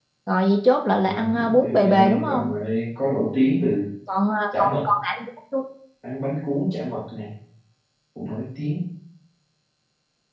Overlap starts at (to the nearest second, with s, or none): 1 s